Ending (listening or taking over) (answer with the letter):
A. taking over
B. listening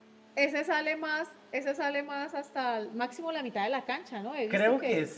A